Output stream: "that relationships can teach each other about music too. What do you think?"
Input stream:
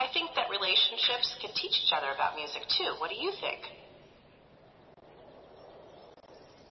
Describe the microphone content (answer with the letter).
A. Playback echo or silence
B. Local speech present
A